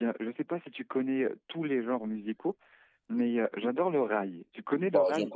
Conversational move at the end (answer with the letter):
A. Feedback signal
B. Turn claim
B